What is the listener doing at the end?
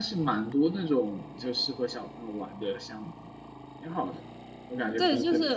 taking over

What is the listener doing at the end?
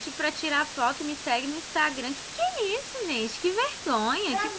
taking over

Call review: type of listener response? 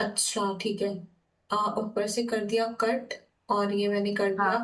listening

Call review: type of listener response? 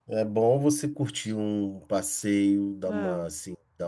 listening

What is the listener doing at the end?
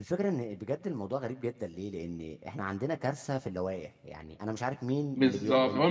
taking over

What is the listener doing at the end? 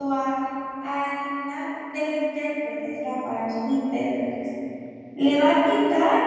listening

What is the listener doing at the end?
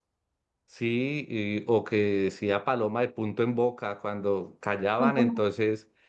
listening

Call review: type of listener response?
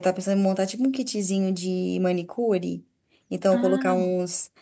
listening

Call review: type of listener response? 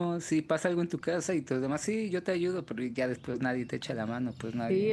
taking over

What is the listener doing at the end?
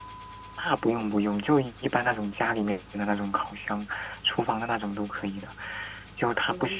listening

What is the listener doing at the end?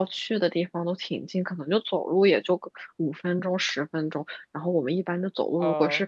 listening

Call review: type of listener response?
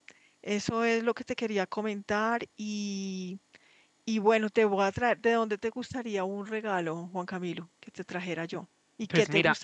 taking over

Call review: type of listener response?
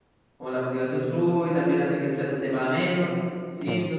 listening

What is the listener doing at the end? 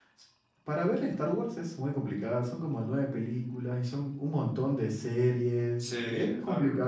listening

